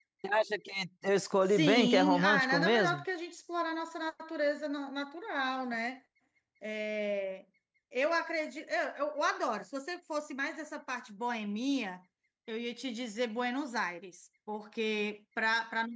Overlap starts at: 1 s

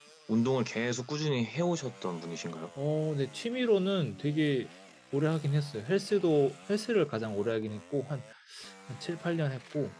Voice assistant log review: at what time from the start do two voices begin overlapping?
none

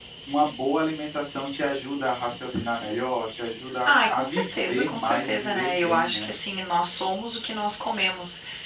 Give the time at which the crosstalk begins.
4 s

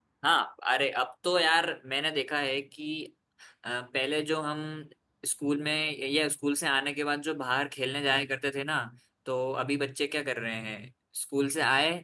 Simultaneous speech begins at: none

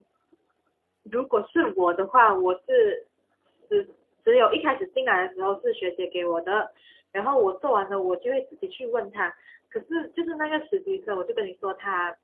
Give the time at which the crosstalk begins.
none

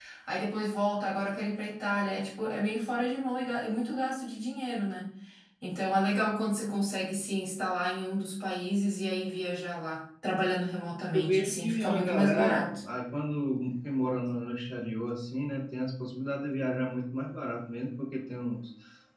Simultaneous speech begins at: 11 s

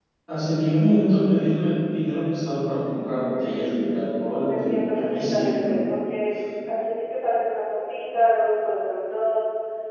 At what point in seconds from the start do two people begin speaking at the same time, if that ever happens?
4 s

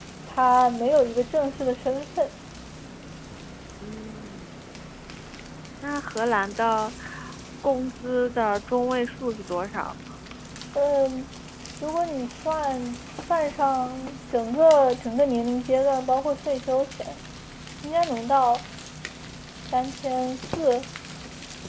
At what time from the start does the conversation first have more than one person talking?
none

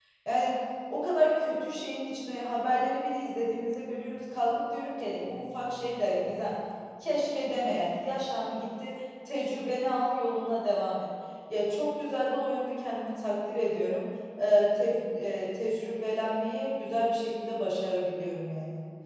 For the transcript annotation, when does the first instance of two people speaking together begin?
none

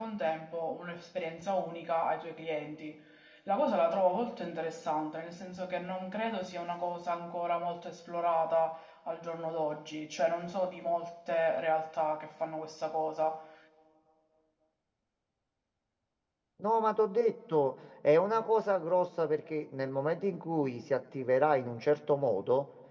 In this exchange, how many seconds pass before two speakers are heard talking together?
none

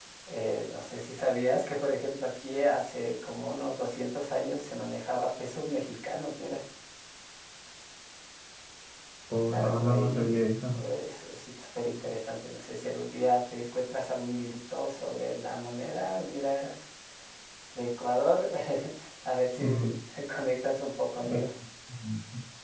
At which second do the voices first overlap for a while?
9 s

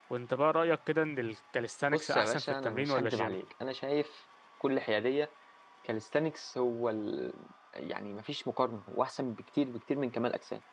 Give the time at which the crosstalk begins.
2 s

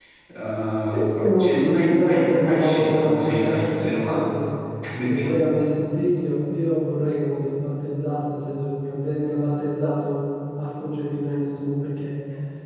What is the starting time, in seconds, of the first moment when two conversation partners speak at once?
1 s

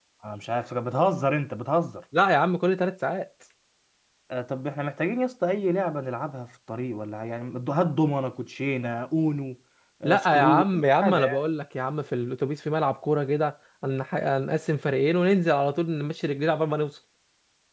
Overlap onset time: 10 s

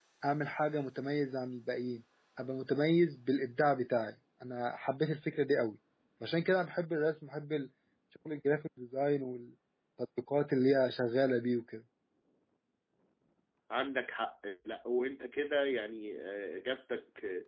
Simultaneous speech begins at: none

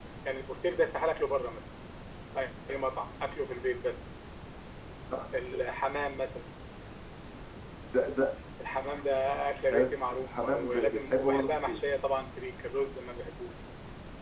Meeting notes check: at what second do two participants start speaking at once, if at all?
10 s

